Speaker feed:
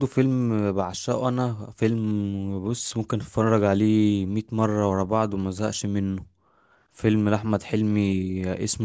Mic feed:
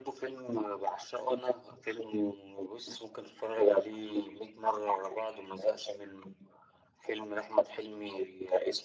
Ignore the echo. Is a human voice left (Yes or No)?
No